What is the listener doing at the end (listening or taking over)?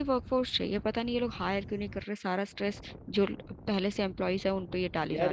taking over